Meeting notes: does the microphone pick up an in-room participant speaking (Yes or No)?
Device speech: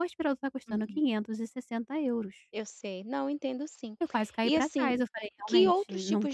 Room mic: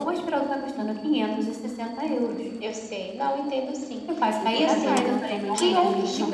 Yes